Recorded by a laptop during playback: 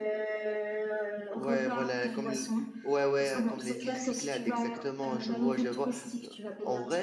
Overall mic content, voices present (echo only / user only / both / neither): both